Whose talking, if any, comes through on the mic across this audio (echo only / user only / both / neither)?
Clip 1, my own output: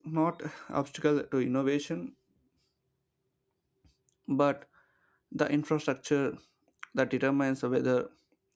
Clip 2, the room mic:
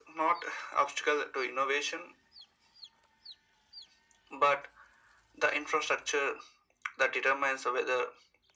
echo only